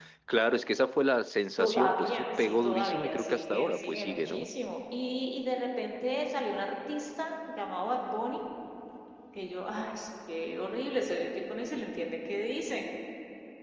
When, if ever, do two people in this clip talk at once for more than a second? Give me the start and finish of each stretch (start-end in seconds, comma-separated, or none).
1.6-4.5